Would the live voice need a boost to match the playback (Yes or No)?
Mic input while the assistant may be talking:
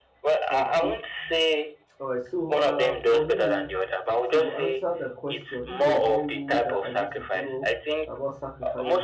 Yes